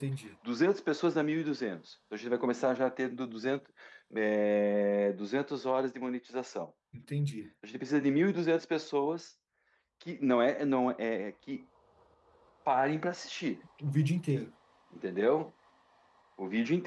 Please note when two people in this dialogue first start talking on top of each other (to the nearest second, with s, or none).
none